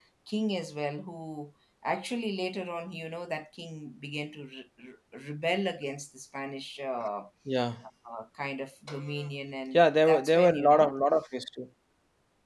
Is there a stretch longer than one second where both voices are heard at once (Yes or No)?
Yes